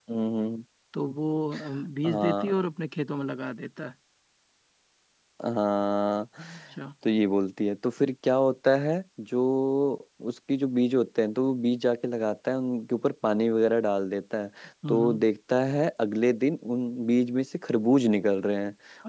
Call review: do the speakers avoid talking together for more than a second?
Yes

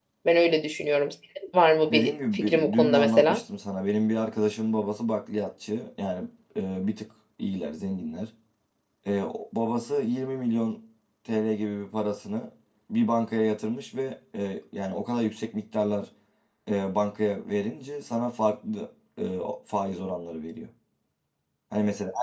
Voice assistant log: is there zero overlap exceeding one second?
No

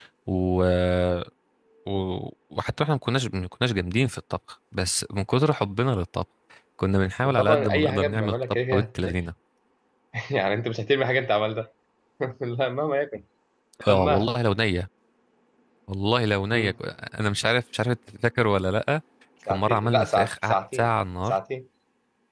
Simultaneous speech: Yes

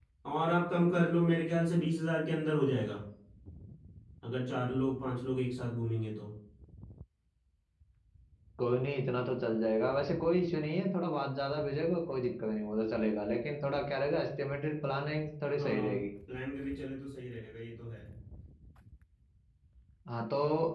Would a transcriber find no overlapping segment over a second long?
Yes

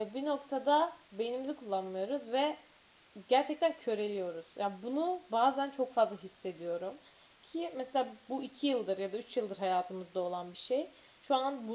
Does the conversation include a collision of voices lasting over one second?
No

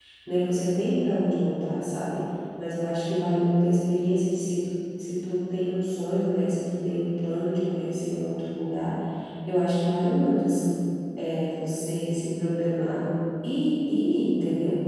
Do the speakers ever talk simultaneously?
No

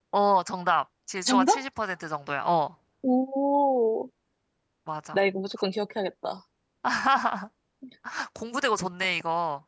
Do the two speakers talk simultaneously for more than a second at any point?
No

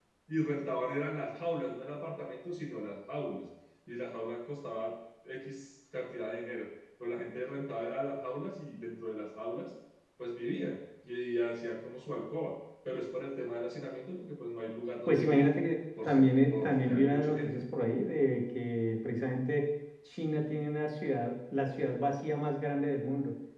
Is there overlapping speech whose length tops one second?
Yes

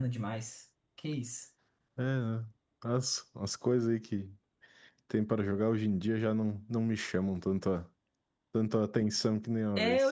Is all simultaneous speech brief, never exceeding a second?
Yes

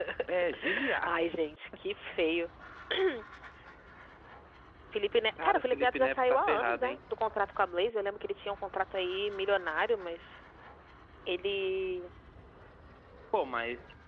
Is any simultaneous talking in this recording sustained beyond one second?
Yes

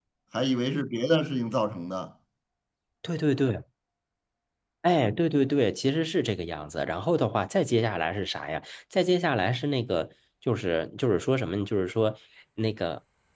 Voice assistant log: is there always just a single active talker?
Yes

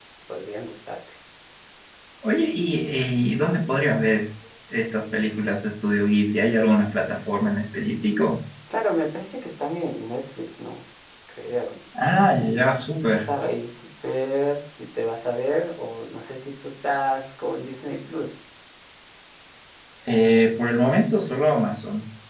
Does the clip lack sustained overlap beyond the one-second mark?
Yes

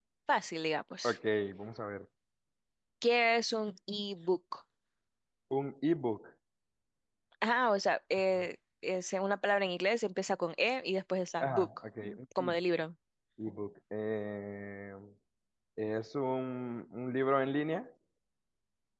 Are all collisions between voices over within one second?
Yes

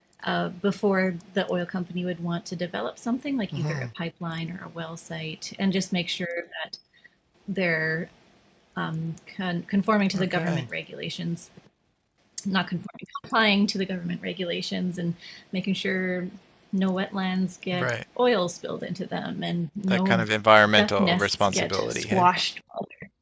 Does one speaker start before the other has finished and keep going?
Yes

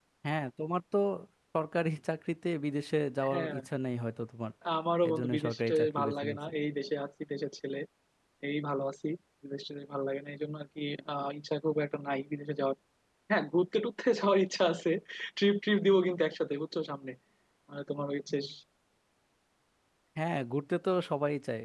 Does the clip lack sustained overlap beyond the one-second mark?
No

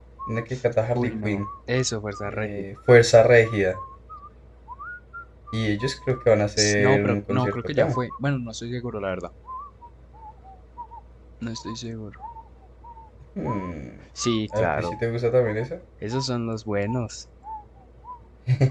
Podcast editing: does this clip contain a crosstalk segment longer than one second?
Yes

